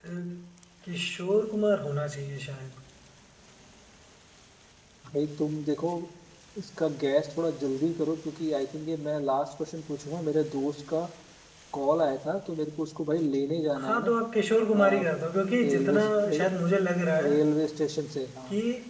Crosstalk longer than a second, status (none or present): none